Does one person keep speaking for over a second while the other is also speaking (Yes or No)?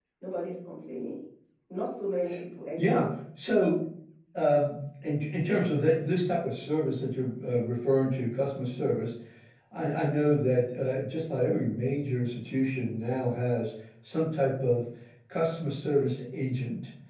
No